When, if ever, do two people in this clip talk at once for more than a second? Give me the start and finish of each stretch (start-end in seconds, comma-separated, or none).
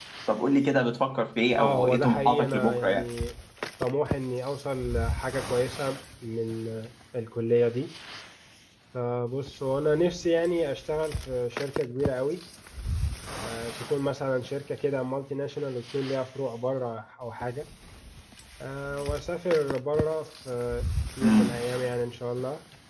1.6-3.0